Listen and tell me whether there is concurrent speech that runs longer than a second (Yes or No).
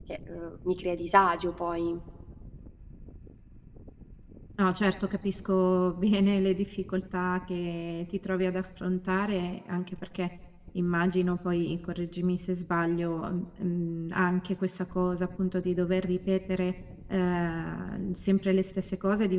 No